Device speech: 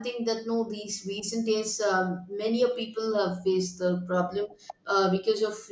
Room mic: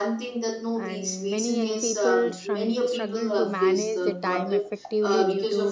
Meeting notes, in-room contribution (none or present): present